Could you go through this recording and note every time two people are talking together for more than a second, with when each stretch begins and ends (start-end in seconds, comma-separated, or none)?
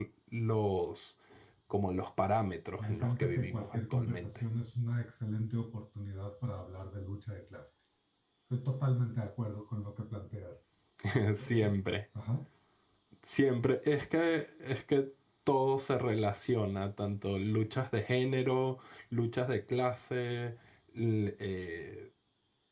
2.8-4.3